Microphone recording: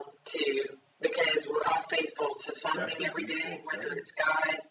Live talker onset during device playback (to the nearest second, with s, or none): 3 s